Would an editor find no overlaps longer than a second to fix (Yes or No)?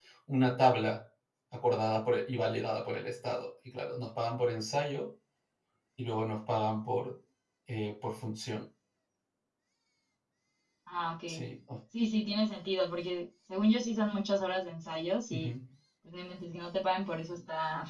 Yes